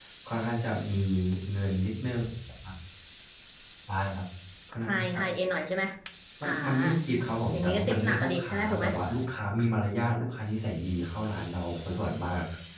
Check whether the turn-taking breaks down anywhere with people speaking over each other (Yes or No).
Yes